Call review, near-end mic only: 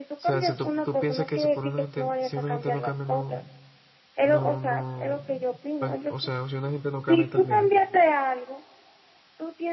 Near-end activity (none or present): present